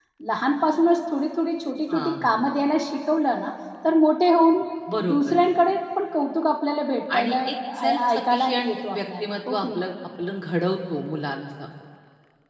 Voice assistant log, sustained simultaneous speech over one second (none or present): present